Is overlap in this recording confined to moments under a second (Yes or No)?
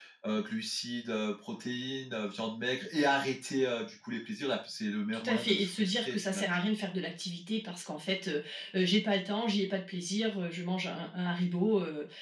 No